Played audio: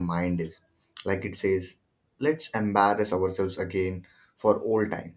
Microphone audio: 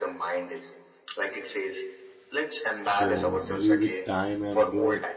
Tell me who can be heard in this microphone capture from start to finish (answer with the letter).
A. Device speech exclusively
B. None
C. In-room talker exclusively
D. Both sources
D